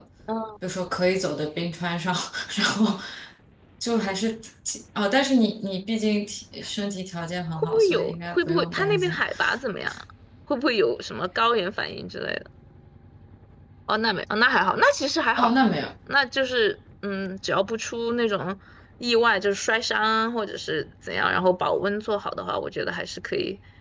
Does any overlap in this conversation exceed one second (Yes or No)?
Yes